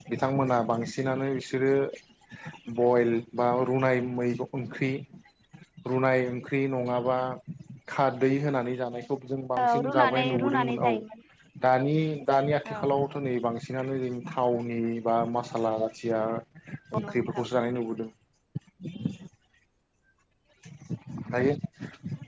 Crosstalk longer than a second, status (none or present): present